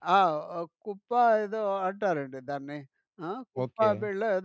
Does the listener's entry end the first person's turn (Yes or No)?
No